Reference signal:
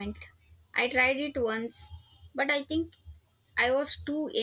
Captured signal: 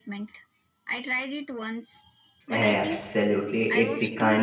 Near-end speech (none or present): present